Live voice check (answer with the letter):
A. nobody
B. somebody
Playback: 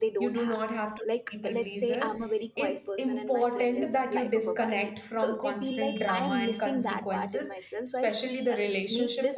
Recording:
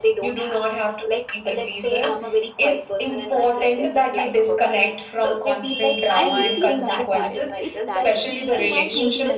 B